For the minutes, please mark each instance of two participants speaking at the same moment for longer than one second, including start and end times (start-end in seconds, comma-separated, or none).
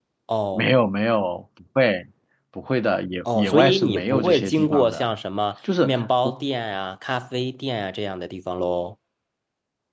3.3-5.1